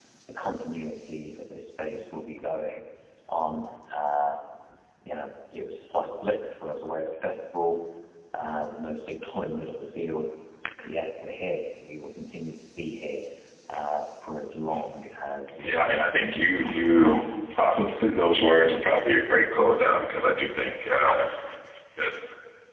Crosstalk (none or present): present